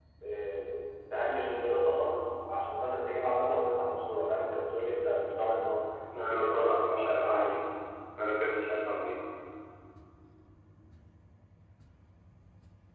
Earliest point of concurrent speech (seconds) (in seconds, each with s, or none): 6.1 s